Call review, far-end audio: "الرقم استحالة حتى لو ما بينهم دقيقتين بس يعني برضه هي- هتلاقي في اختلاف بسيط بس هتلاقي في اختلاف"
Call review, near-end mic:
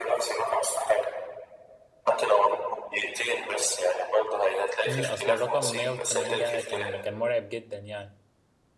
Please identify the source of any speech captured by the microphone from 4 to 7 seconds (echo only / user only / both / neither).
both